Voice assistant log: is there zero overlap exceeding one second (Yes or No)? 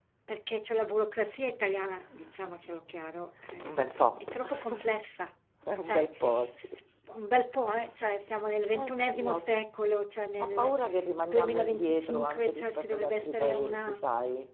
No